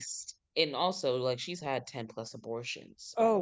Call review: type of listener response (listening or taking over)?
taking over